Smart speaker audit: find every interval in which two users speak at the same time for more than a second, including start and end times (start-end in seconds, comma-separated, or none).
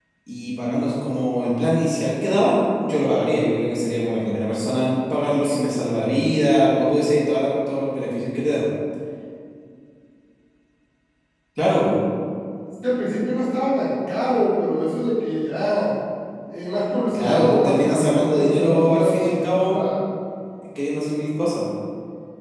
17.1-19.8